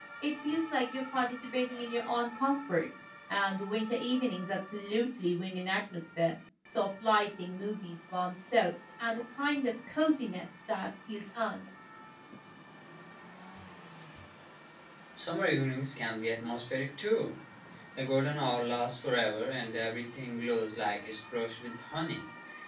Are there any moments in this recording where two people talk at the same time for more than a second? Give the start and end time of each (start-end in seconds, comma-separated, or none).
none